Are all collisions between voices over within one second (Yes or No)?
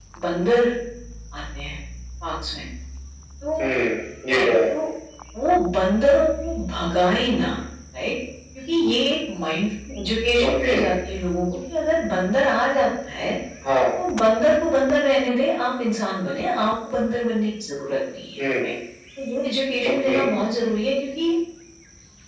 Yes